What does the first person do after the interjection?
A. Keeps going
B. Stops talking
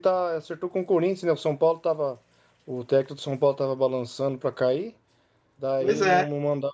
A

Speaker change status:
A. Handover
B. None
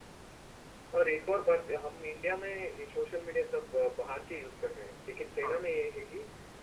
B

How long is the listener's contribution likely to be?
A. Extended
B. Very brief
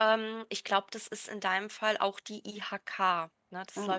B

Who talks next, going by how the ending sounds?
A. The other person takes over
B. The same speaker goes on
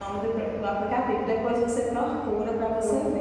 A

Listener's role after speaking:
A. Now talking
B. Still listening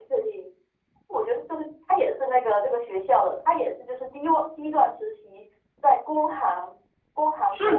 A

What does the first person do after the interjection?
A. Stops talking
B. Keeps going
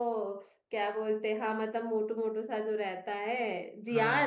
A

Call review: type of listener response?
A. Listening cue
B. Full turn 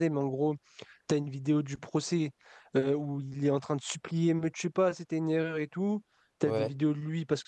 A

